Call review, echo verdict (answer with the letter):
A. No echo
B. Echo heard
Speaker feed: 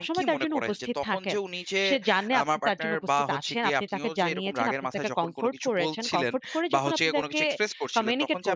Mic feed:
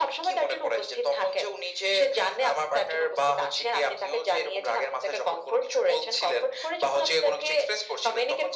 B